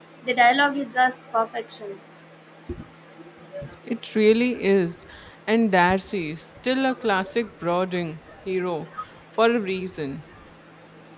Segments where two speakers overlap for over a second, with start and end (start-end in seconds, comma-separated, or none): none